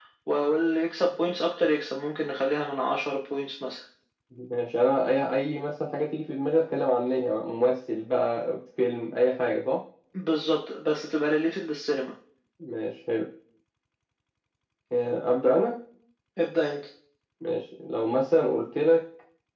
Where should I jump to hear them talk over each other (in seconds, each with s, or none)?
none